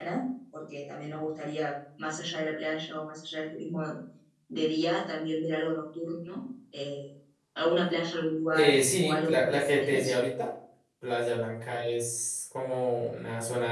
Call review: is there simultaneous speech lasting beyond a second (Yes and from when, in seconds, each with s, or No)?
Yes, from 8.5 s